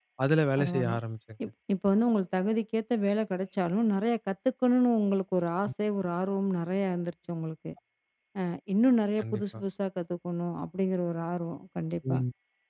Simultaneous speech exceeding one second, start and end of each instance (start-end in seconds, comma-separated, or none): none